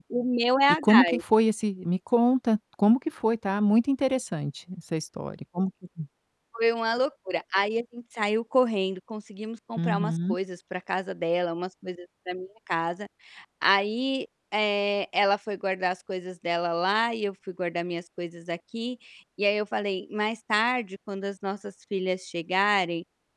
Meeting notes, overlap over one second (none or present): none